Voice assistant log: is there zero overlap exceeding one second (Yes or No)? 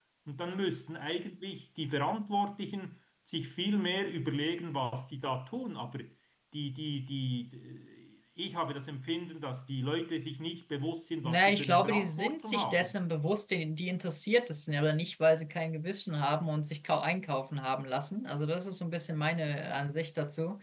No